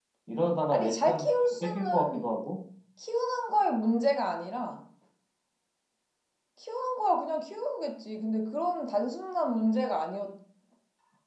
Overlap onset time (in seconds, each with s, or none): 0.7 s